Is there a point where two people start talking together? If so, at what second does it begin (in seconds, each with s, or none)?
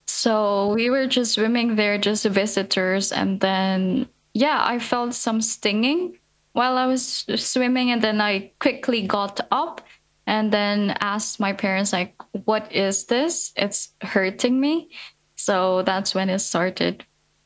none